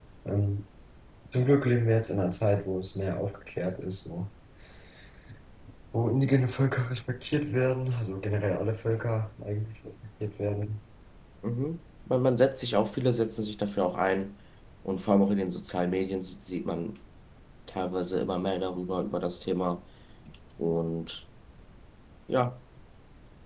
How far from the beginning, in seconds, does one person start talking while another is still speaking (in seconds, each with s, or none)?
none